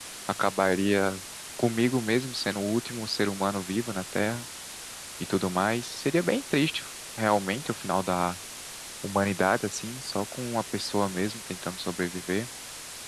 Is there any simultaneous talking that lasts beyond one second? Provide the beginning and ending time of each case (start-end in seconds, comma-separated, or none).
none